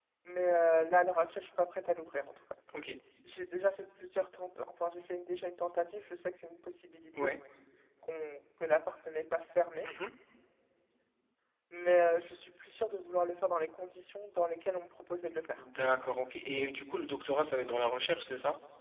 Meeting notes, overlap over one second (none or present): none